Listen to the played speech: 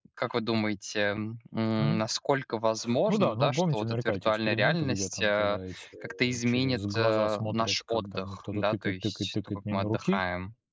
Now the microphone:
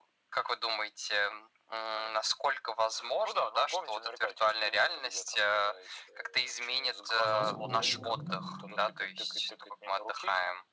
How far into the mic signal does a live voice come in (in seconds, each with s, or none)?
7.2 s